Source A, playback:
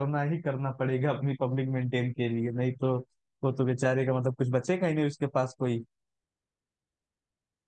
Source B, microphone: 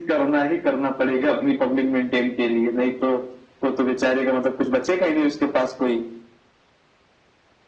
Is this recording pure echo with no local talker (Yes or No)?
Yes